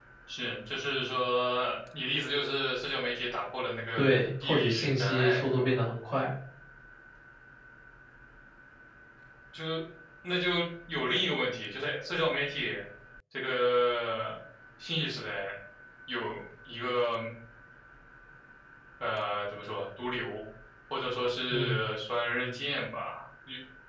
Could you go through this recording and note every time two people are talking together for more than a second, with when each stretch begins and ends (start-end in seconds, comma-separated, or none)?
4.0-5.6